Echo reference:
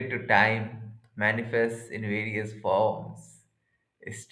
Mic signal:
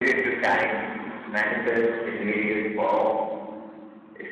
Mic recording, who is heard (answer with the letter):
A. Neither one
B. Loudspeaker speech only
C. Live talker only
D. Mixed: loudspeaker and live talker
B